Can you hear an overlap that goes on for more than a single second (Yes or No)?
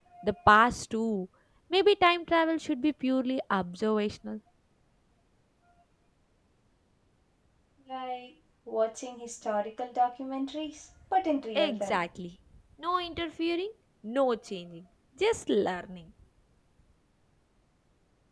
No